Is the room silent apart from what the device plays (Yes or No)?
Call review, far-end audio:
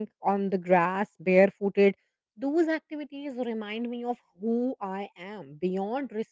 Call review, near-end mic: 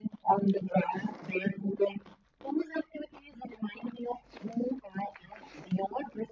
Yes